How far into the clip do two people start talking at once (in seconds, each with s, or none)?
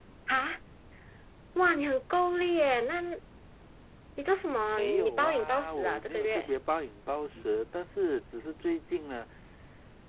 4.7 s